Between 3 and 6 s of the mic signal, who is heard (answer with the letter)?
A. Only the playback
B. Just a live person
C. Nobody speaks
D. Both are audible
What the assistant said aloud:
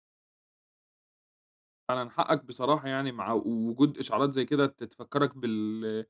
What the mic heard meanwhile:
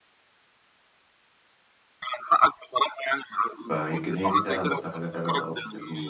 D